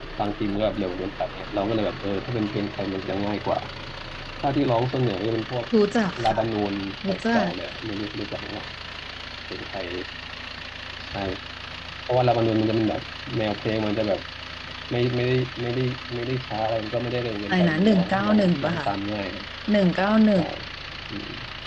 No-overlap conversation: No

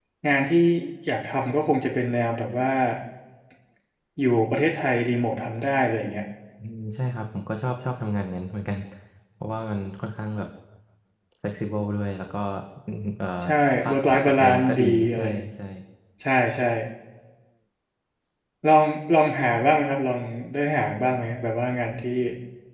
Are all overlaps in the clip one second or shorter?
No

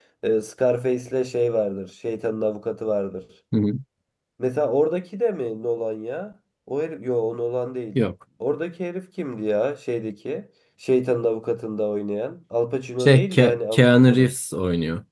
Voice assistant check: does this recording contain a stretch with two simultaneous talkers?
Yes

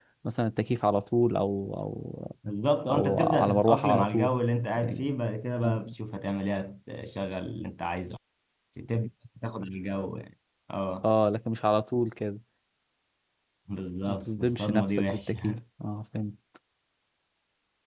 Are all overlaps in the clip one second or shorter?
No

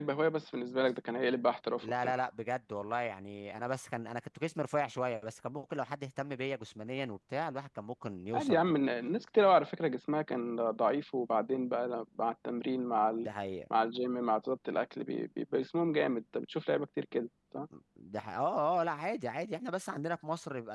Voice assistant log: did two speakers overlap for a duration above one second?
No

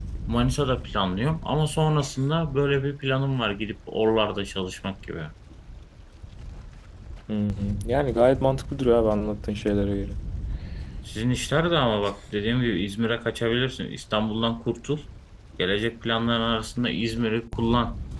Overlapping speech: No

